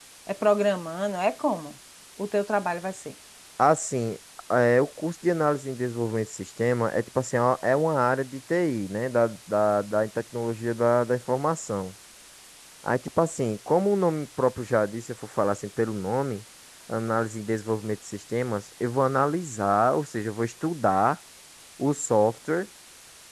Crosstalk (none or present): none